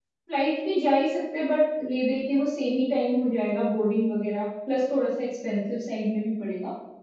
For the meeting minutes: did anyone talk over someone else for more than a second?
No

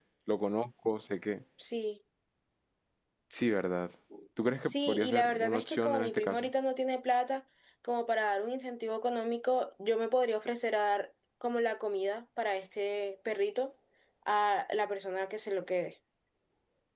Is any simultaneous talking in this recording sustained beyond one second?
Yes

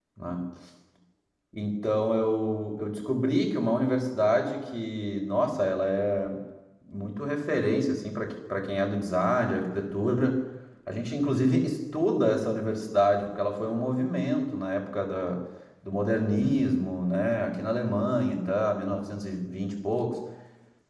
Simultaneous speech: No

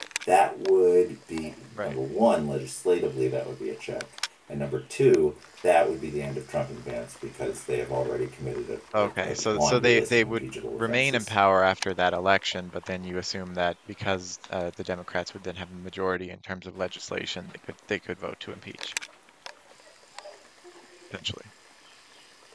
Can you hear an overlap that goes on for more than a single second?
Yes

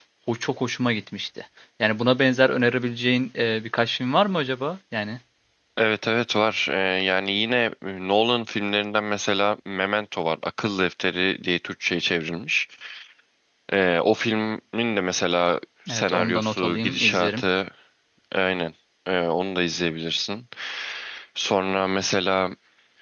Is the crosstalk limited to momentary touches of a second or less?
No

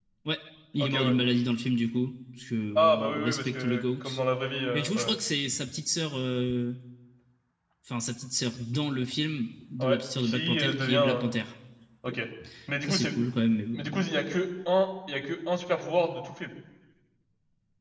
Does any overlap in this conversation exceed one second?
Yes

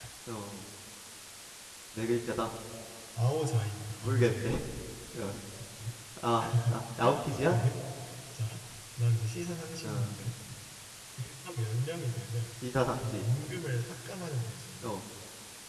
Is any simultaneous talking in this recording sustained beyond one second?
No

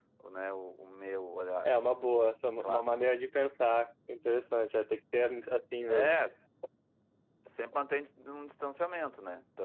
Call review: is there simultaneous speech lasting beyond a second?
No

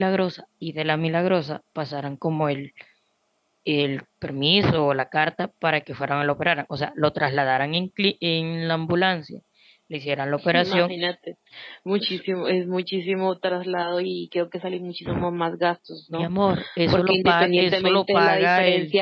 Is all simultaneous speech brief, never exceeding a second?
No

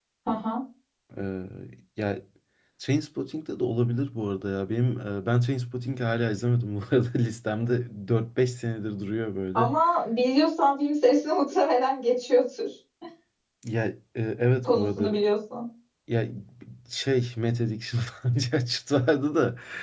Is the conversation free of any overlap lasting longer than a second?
Yes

